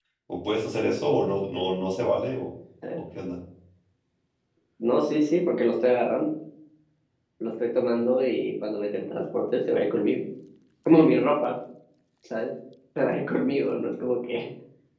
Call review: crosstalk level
none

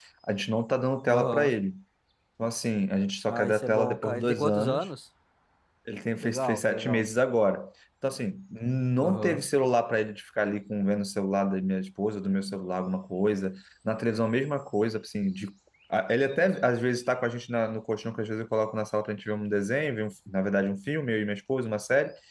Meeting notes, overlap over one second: present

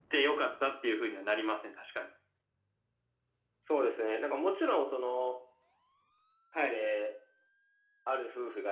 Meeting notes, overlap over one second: none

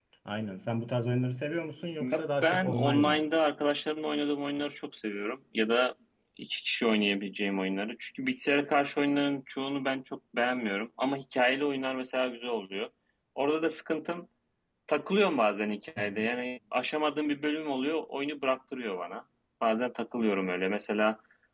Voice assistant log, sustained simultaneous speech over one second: present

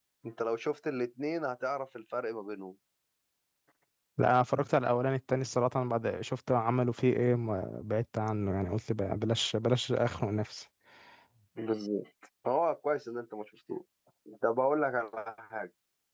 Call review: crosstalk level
none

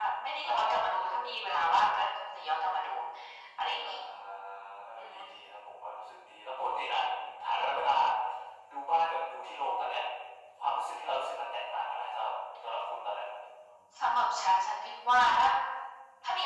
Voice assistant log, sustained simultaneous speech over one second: none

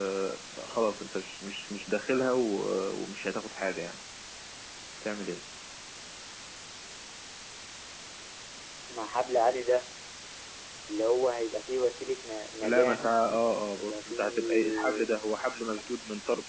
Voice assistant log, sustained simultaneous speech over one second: present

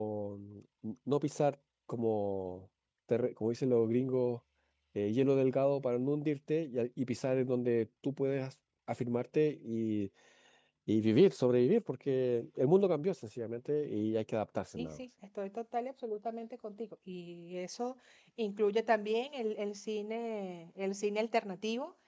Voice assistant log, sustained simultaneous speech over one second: none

